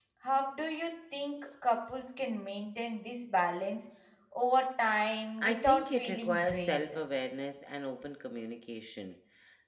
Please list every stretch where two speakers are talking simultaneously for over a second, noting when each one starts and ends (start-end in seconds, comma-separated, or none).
5.4-7.0